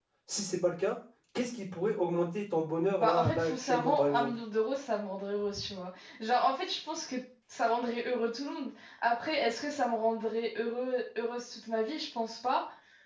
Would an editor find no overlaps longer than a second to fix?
No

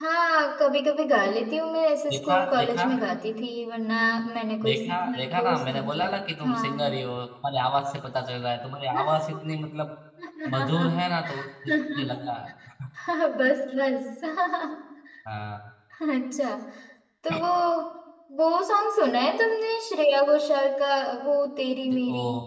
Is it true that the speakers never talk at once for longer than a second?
No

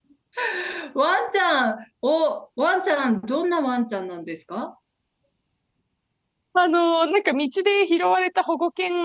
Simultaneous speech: No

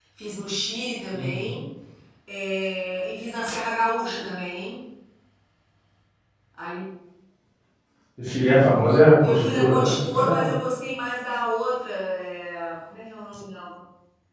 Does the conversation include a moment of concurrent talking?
Yes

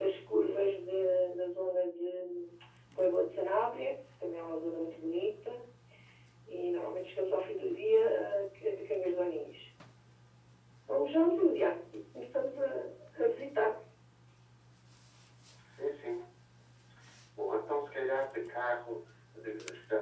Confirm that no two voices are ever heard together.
Yes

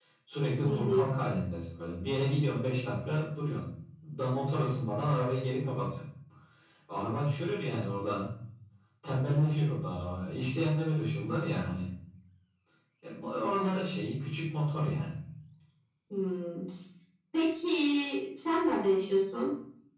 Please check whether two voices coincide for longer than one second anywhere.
No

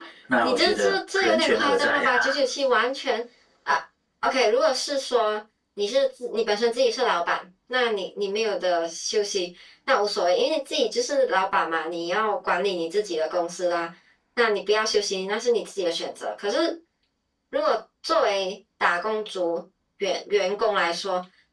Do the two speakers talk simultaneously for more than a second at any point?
Yes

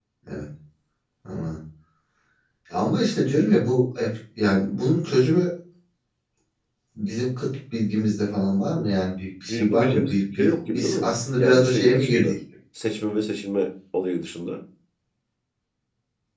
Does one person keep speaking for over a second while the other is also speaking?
Yes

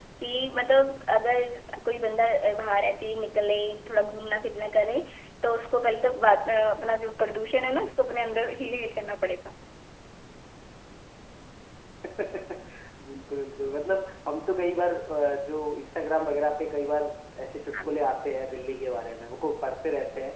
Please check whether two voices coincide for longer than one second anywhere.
No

